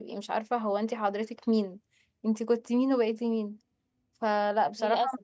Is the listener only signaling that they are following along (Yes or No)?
Yes